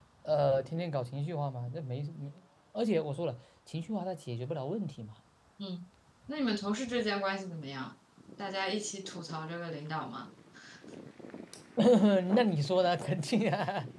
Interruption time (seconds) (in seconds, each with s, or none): none